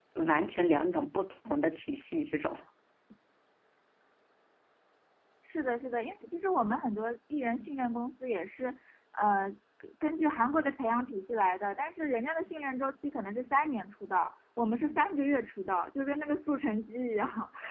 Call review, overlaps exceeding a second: none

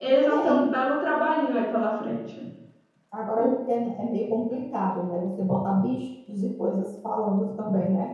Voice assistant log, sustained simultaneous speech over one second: none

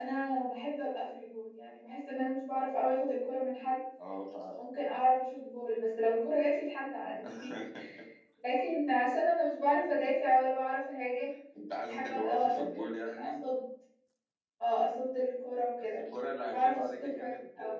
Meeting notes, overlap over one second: present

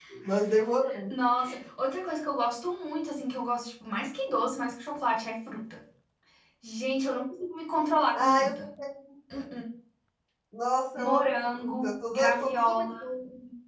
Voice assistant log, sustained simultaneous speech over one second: present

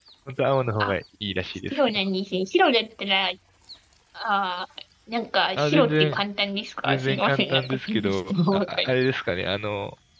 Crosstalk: present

